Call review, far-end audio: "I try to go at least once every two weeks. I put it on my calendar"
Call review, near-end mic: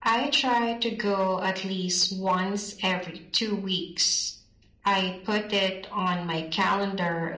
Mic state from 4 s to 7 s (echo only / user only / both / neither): echo only